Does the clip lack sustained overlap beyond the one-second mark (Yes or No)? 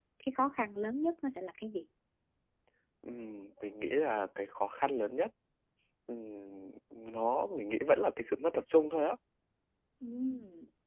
Yes